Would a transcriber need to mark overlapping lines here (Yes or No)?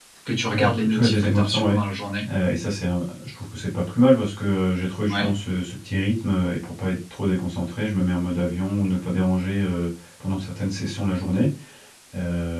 Yes